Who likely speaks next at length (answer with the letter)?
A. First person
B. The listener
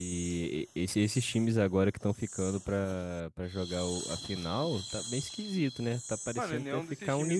B